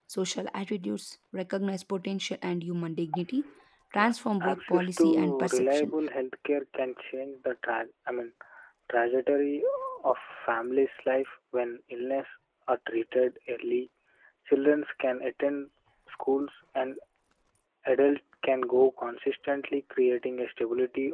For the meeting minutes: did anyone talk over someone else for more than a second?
Yes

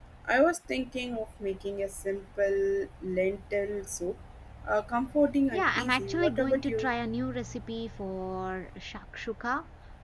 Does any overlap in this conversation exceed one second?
Yes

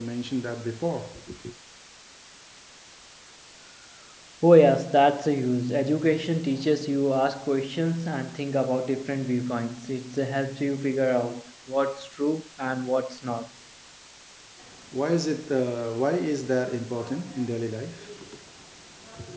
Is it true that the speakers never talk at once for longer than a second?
Yes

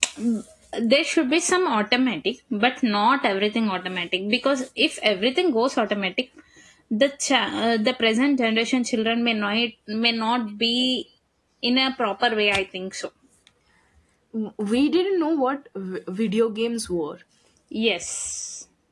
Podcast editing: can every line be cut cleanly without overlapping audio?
Yes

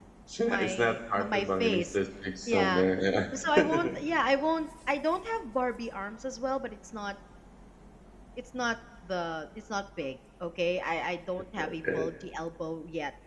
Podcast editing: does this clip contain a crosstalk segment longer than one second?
Yes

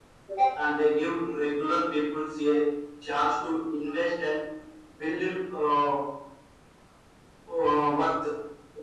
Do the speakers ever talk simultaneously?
No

